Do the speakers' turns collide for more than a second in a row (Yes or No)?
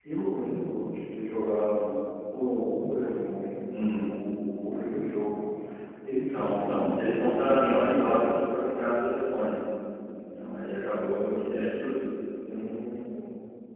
Yes